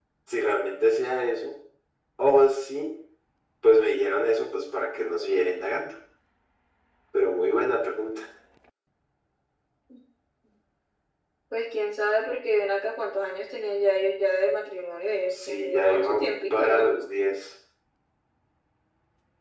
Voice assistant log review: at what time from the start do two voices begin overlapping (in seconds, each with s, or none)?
15.3 s